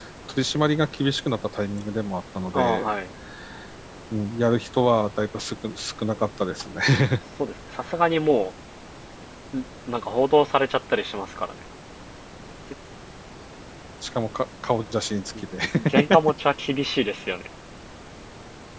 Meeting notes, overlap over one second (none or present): none